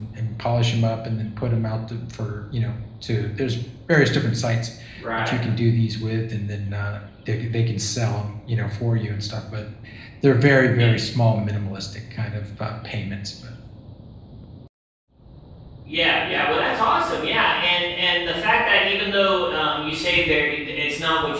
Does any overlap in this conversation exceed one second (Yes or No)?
No